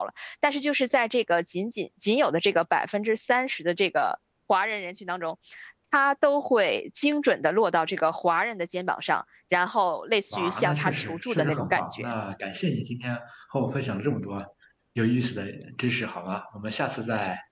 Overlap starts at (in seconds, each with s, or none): 10.3 s